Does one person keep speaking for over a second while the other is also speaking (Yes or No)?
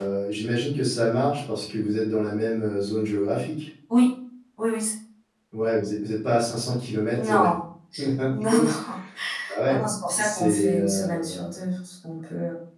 Yes